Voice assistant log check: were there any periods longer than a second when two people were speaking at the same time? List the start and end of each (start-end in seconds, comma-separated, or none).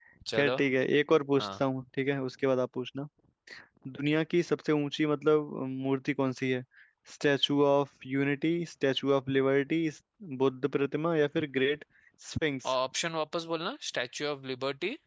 none